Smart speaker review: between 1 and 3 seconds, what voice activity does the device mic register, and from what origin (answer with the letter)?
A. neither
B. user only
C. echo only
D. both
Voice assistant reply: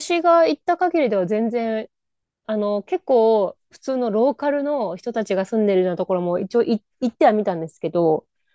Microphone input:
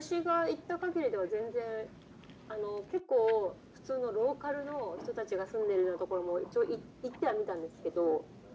C